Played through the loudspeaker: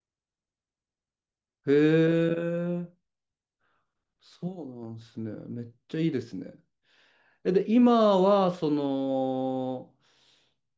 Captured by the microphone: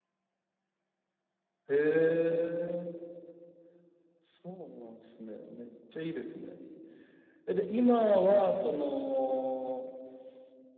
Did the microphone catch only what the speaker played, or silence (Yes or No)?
Yes